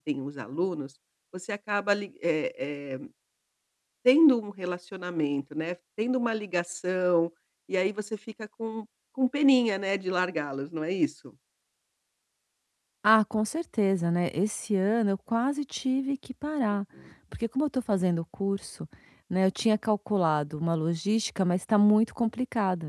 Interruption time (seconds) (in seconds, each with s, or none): none